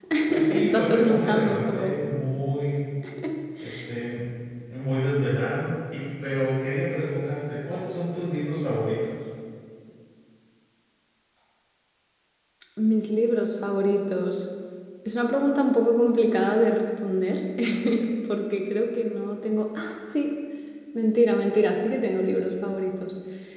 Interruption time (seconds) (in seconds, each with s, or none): 0.5 s